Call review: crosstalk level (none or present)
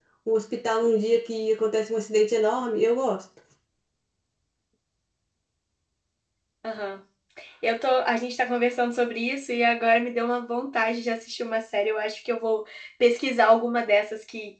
none